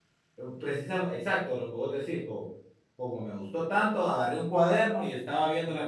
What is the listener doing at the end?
listening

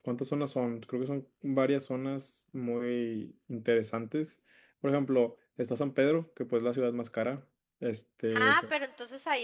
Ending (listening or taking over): taking over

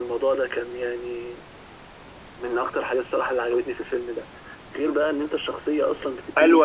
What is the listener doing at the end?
taking over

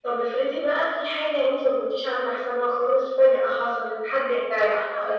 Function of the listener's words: taking over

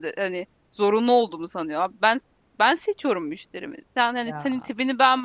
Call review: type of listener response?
listening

